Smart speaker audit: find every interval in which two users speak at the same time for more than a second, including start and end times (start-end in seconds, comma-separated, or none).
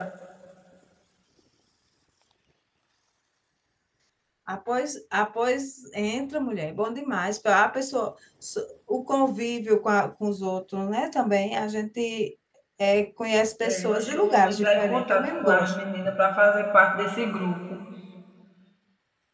13.6-15.7